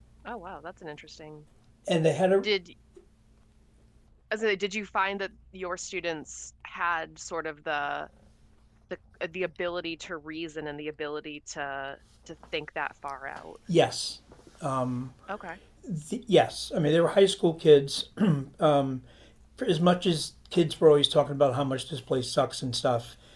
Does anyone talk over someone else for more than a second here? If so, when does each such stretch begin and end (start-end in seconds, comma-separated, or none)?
none